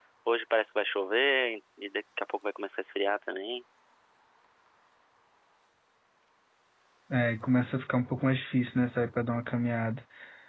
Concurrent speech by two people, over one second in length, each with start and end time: none

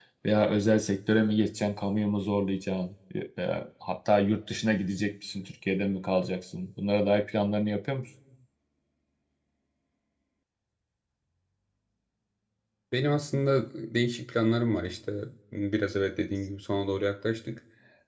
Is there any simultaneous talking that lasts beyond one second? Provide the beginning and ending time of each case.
none

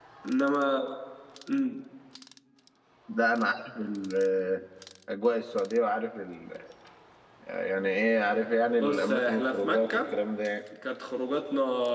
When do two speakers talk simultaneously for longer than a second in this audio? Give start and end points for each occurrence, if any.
8.8-10.2

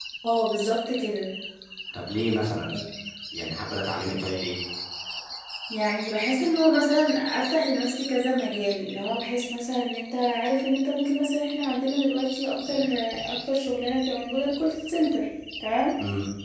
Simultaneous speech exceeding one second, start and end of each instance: none

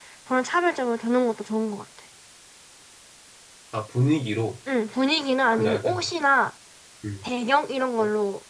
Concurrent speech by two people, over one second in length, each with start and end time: none

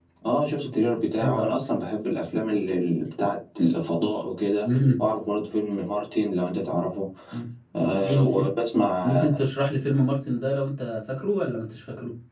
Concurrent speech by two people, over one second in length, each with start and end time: none

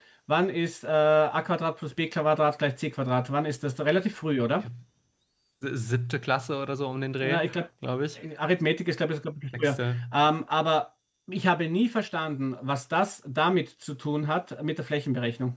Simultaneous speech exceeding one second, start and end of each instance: none

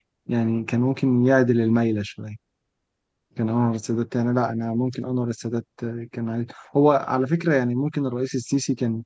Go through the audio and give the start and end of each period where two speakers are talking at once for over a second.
none

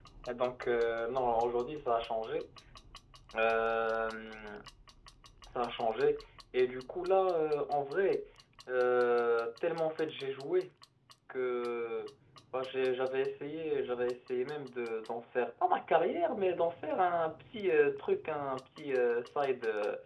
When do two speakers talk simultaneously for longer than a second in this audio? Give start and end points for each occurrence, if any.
none

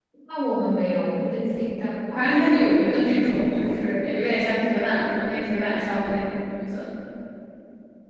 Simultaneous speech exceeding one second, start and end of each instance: 2.1-3.7

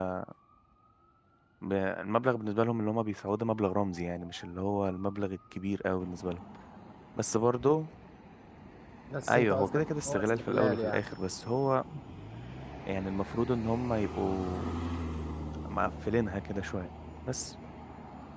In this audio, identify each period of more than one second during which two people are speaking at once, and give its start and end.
9.3-11.2

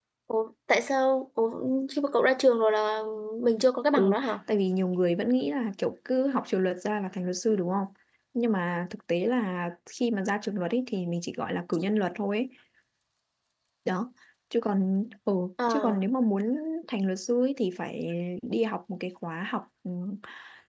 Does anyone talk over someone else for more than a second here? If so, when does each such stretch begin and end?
none

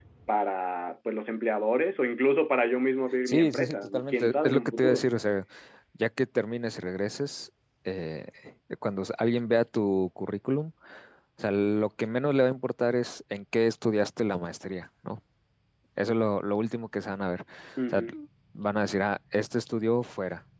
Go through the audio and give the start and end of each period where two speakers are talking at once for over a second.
3.3-5.1

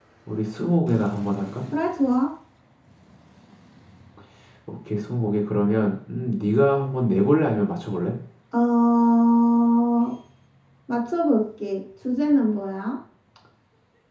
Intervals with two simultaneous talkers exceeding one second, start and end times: none

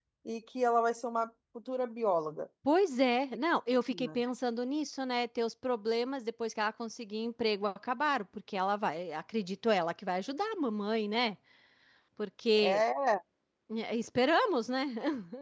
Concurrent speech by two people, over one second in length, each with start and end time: none

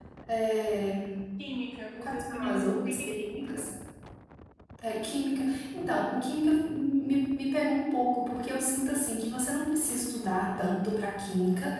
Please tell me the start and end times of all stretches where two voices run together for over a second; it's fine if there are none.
2.0-3.7

